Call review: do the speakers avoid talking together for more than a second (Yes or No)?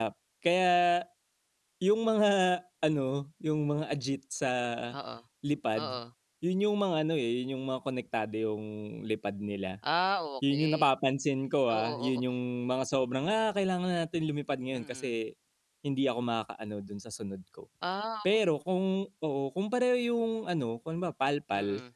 Yes